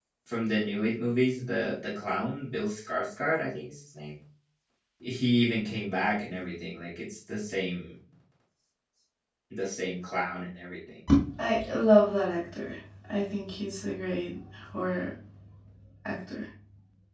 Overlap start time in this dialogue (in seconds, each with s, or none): none